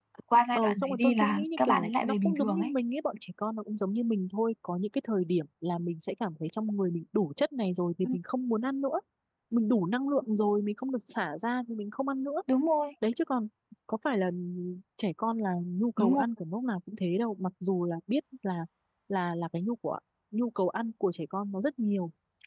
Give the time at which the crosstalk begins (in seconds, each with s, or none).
0.6 s